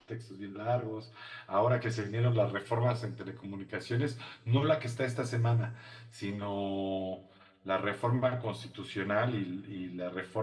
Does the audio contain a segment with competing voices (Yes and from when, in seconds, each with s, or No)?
No